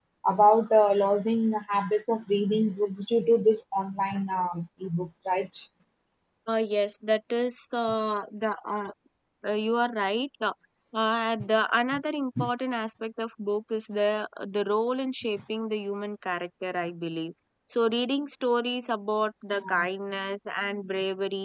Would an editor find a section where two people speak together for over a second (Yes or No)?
No